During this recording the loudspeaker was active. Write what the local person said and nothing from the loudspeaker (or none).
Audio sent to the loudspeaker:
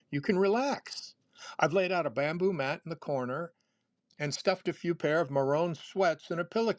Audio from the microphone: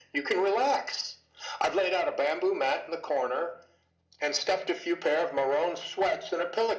none